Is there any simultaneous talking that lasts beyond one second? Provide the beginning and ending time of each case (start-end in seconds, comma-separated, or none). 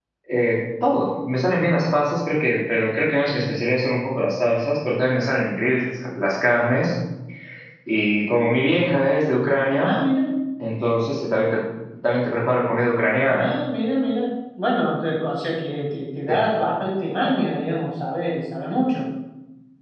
none